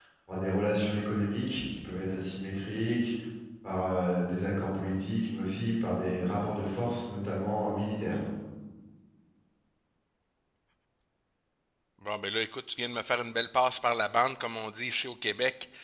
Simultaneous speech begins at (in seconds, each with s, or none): none